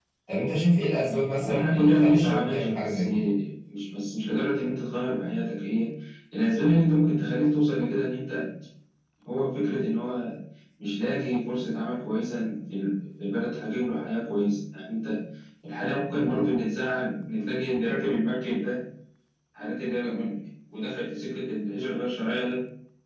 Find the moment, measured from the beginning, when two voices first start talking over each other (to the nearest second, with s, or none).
1 s